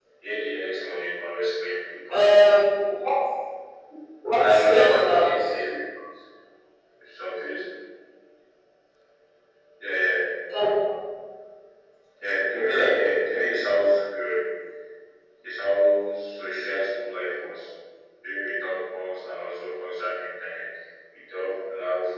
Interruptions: present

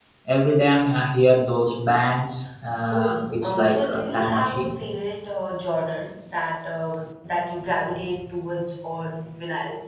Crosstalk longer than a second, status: present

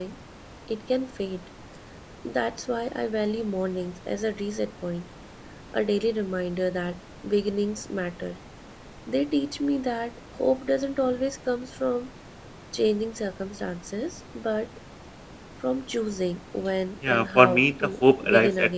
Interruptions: present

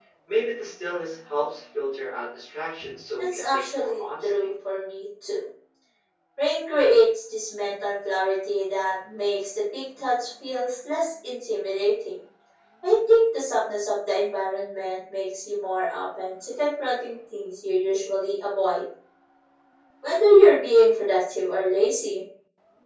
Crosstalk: present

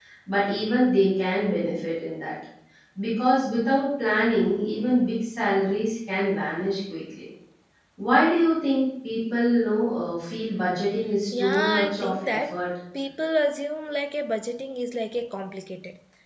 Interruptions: present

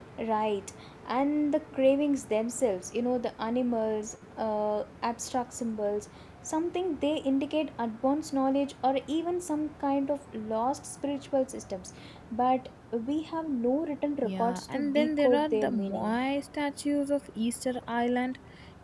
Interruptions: present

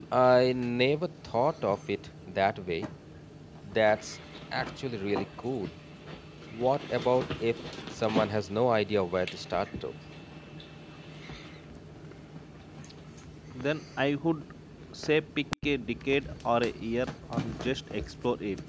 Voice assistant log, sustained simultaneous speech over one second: none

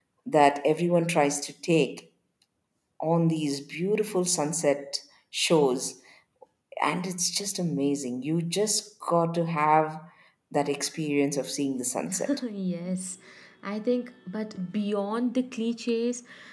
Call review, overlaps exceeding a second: none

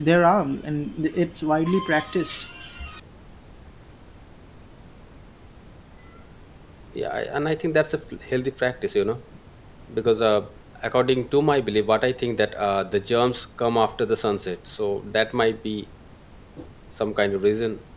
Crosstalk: none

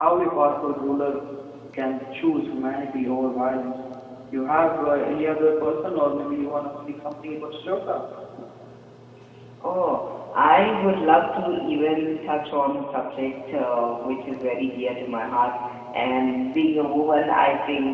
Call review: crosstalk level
none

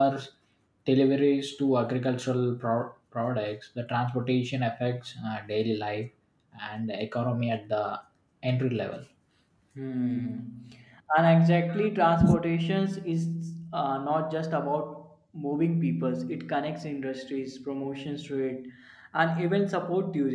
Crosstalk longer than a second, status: none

